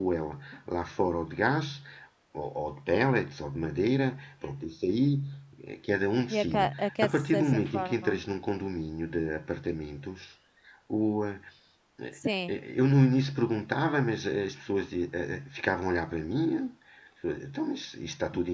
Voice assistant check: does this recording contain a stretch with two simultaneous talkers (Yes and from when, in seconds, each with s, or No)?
Yes, from 6.3 s